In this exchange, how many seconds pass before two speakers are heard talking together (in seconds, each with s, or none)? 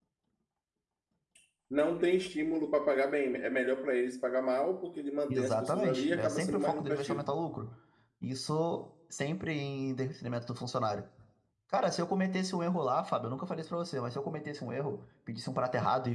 5.3 s